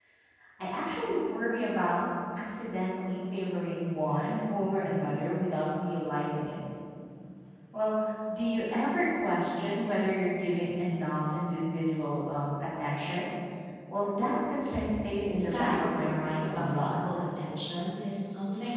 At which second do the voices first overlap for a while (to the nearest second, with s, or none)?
15 s